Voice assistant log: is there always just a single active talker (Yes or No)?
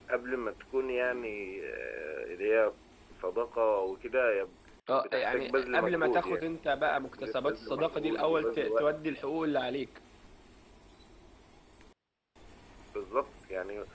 No